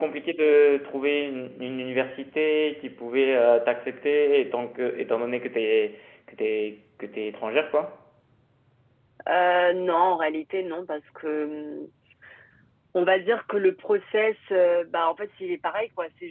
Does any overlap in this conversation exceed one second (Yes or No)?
No